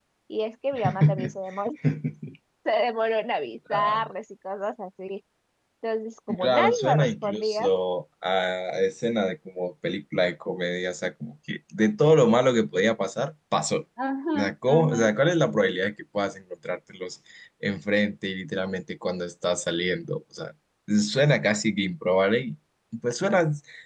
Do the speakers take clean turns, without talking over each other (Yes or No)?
No